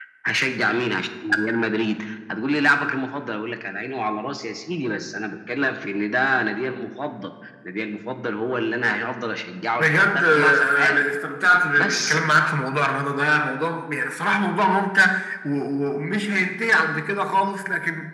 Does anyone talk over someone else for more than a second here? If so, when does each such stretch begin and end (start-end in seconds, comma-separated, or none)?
9.8-11.0